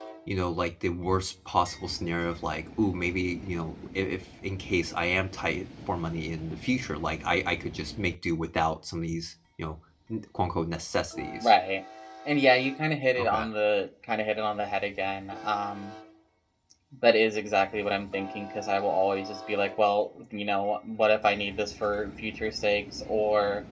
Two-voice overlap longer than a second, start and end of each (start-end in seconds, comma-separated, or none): none